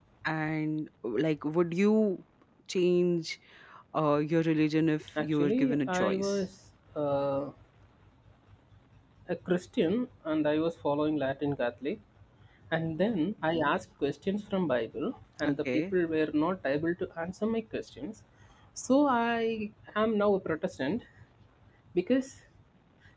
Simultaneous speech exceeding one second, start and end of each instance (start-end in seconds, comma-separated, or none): 5.2-6.4